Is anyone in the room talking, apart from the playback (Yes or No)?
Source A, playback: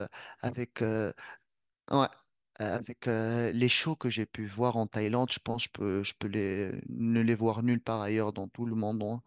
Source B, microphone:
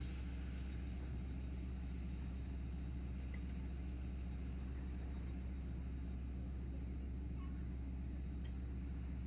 No